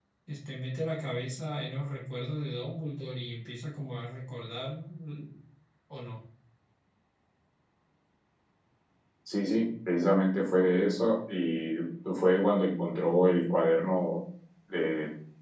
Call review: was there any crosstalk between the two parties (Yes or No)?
No